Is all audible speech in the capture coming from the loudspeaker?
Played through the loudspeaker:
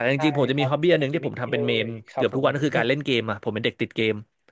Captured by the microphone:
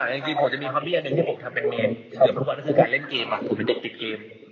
Yes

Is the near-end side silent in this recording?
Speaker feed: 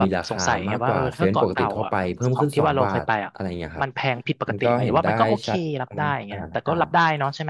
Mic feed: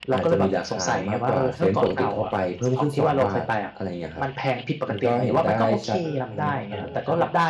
No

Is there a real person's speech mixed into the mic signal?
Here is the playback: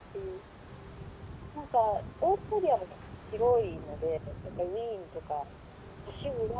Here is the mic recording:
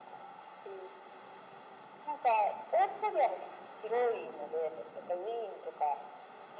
No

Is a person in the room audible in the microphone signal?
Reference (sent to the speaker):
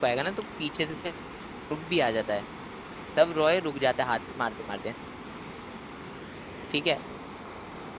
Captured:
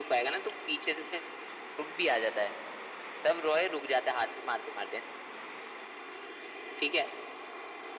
No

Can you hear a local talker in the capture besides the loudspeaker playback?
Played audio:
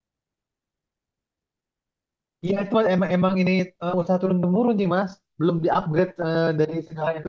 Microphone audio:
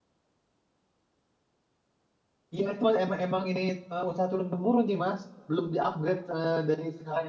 No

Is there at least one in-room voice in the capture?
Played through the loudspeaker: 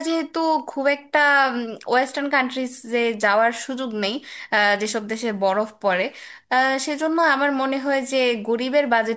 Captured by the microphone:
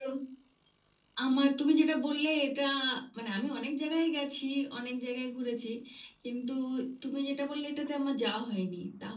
Yes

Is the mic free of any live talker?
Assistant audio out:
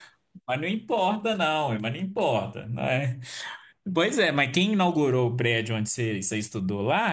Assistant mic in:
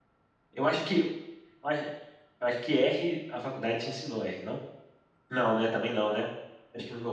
No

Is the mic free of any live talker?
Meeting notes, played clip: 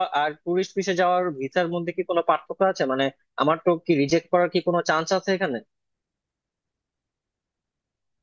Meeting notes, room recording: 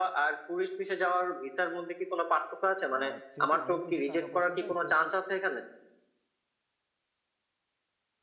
No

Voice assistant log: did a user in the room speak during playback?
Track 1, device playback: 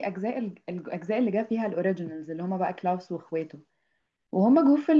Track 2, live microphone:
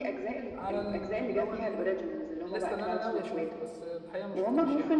Yes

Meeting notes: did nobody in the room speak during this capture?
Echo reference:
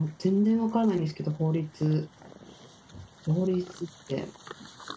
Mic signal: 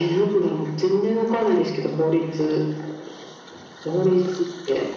Yes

